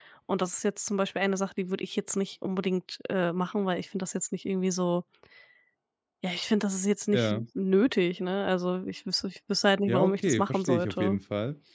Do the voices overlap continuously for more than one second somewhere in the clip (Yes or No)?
Yes